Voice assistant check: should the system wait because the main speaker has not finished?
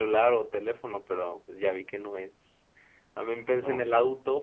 Yes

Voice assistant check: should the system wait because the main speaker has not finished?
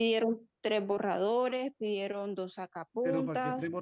No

